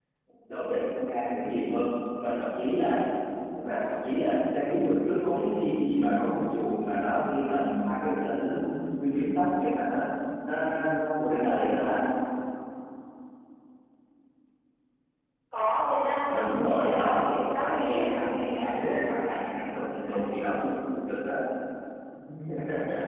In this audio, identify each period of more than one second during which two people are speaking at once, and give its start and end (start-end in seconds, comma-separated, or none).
16.3-17.9